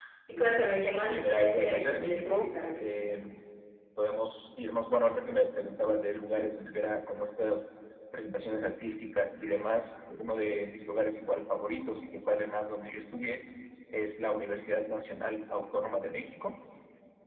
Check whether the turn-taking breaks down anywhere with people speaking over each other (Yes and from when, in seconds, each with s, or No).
Yes, from 1.0 s